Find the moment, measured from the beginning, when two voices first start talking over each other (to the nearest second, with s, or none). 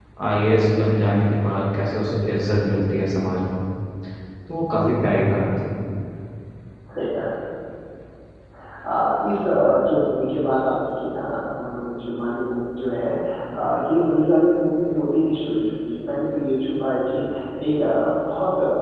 none